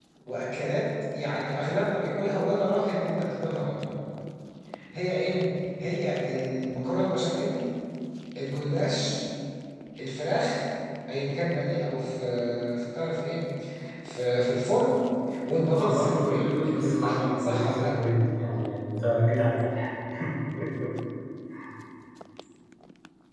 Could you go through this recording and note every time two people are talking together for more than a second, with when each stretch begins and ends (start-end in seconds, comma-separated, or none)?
15.8-18.0